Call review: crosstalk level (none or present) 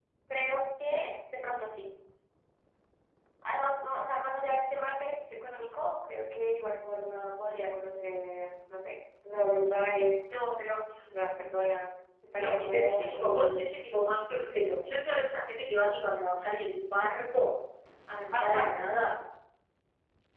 present